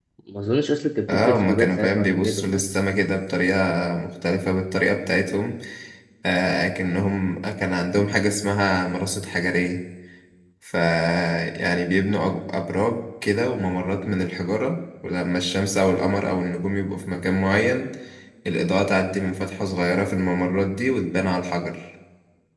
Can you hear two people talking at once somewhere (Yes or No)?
Yes